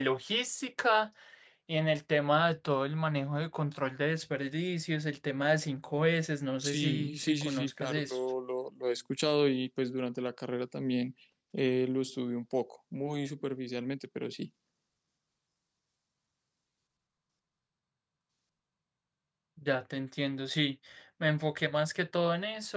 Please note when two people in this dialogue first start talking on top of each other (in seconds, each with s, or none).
6.6 s